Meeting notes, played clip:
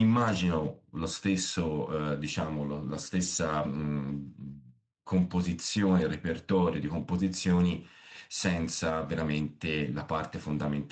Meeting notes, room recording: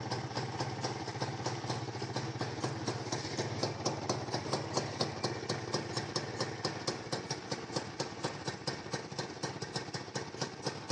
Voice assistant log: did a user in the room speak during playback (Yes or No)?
No